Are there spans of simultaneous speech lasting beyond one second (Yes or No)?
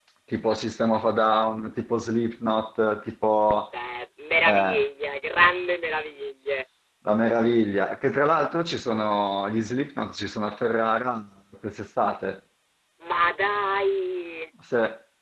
No